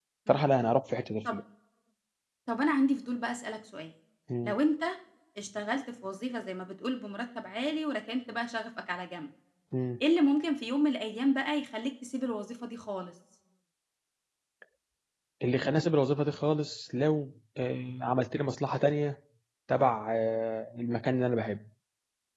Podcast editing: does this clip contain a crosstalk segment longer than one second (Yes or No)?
No